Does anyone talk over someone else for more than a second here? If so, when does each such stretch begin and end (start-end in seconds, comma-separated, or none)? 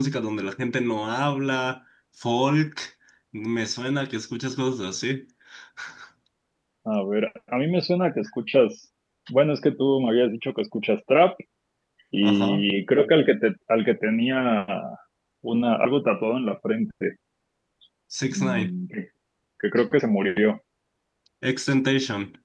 none